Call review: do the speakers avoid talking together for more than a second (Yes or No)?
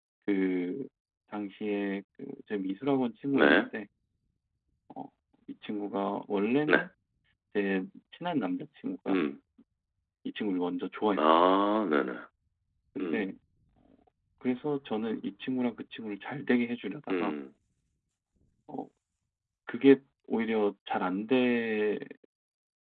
Yes